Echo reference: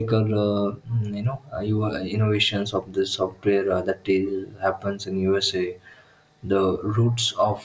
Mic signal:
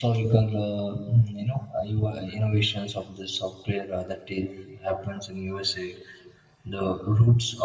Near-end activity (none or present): none